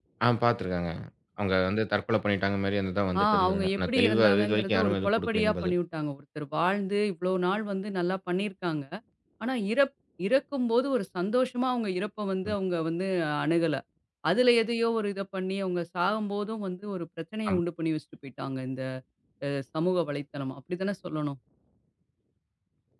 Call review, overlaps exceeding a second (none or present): present